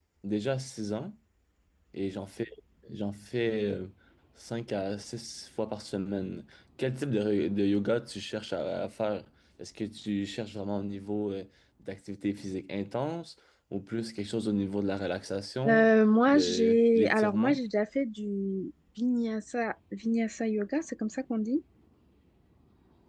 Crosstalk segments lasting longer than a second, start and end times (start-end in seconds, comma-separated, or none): 16.3-17.6